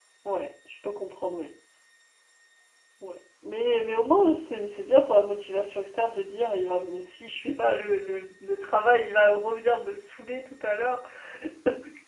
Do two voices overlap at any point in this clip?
No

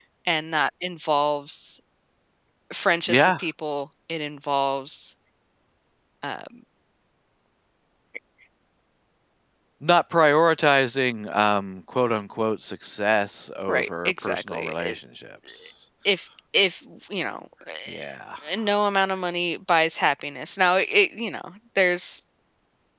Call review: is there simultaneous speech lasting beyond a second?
Yes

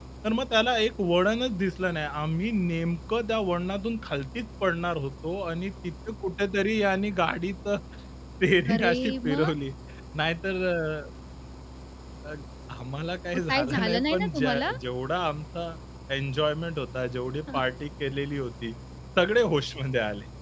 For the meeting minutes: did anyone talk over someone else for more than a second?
Yes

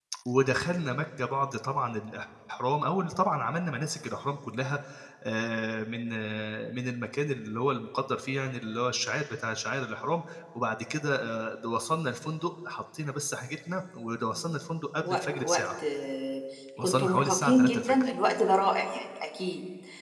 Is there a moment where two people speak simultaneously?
Yes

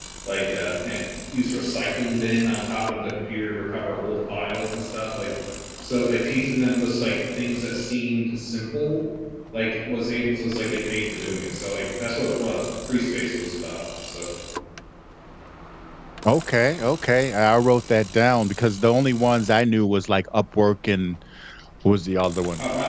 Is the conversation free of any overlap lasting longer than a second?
Yes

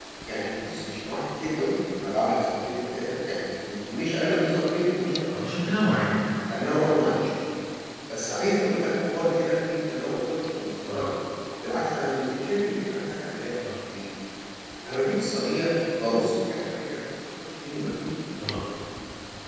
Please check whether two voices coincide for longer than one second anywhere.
No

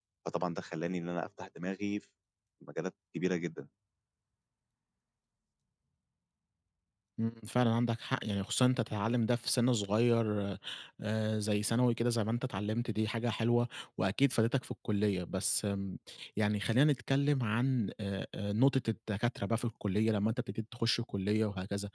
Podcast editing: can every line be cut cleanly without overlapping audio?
Yes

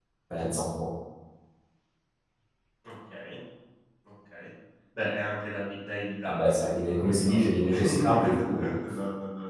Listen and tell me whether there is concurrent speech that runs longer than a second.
Yes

